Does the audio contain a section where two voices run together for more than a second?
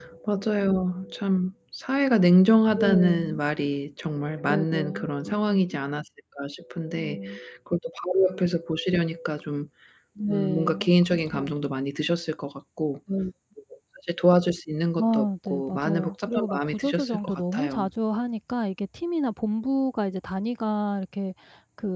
Yes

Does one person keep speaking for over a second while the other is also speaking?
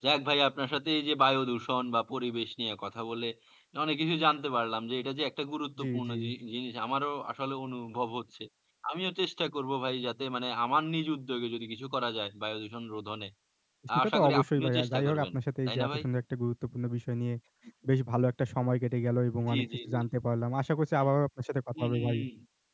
Yes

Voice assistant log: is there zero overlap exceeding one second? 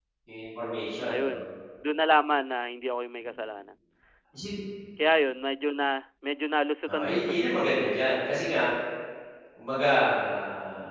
Yes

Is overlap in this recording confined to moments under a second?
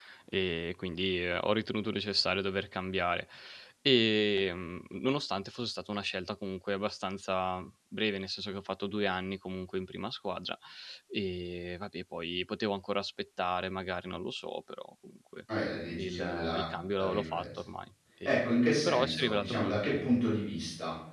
No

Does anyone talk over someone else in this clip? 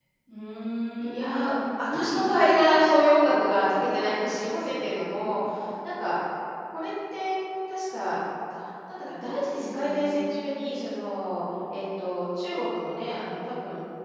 Yes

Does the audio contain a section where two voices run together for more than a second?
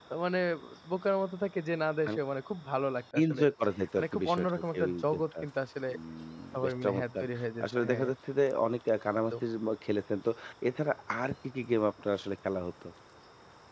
Yes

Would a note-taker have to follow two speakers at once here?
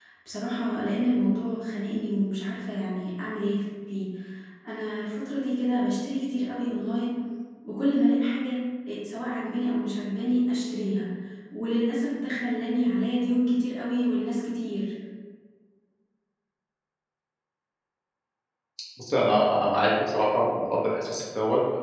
No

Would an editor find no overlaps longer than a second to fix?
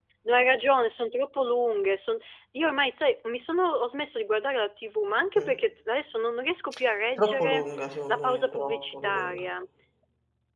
No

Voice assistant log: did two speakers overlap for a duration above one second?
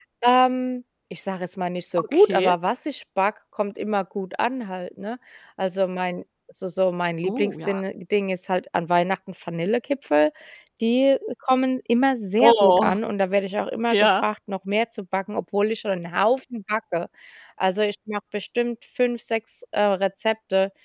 No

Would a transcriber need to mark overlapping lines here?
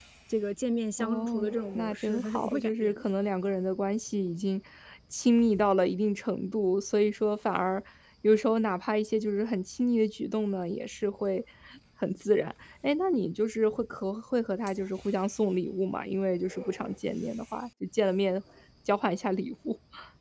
Yes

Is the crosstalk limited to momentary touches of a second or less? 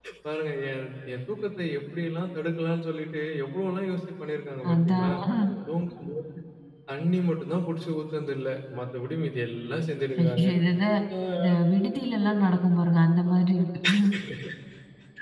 Yes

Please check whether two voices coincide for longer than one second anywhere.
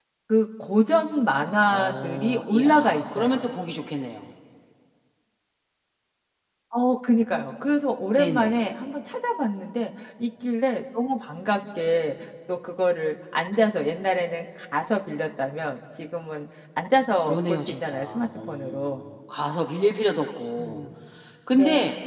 Yes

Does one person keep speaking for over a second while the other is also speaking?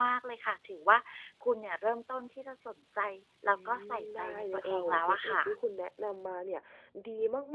Yes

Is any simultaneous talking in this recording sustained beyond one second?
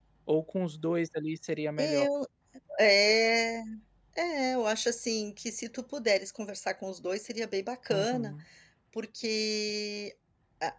No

